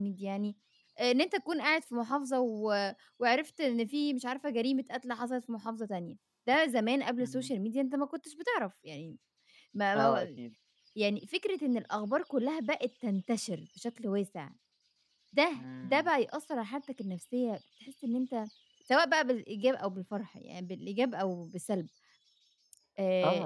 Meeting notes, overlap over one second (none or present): none